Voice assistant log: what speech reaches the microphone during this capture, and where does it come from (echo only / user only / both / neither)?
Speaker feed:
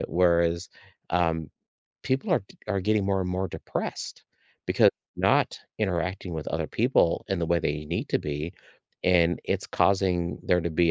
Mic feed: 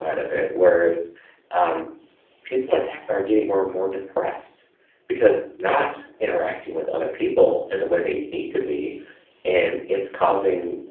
both